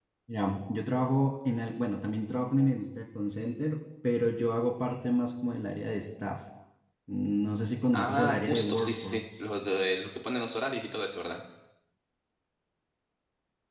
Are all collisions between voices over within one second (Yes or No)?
No